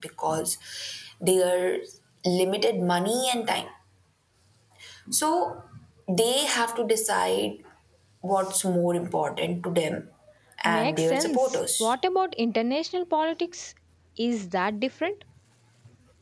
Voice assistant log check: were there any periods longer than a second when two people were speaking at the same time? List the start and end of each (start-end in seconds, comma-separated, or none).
10.7-11.9